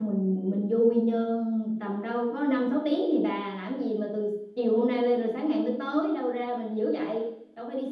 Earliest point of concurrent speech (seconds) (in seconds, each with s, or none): none